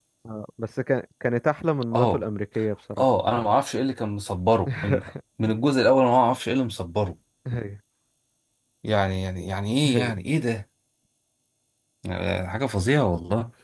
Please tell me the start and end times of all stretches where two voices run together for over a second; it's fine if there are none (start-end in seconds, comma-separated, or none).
none